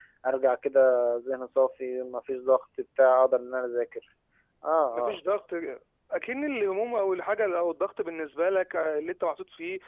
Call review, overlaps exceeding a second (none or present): none